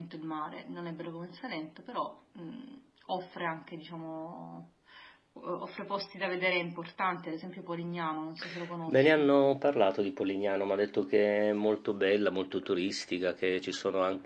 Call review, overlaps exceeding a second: none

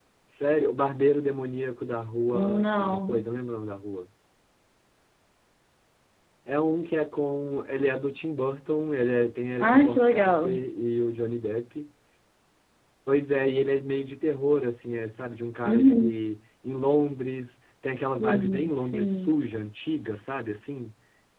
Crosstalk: present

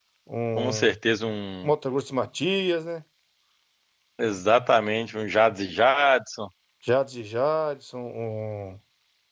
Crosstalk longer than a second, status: none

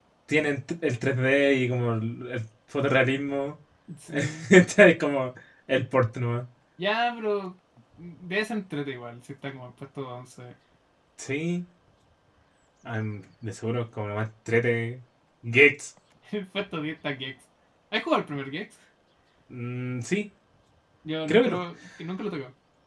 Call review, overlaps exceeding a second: none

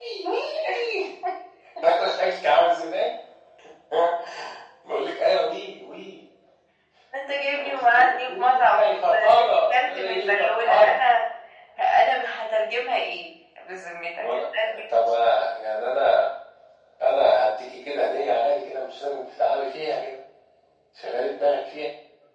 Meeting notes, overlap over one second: present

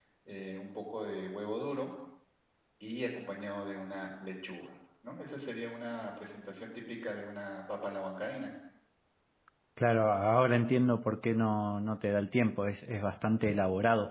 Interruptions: none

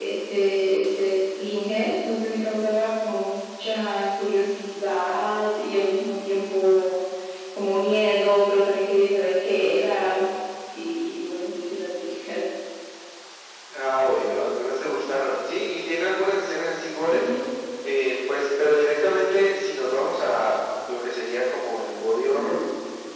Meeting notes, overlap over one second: none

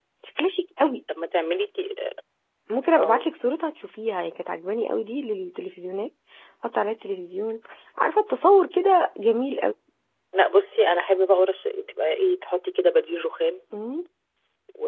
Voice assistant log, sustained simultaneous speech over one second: none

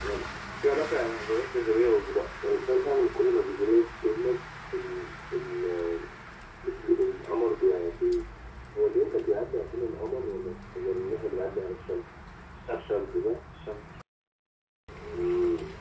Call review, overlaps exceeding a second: none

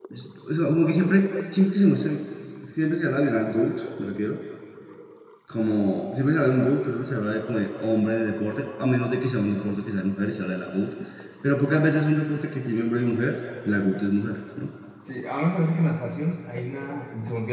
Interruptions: none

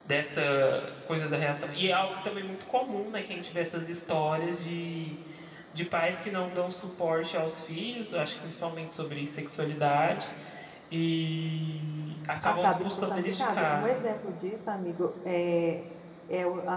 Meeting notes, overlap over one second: present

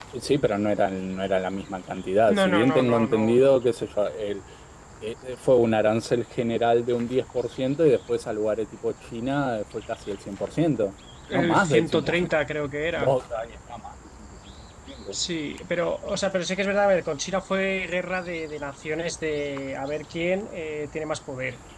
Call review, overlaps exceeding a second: present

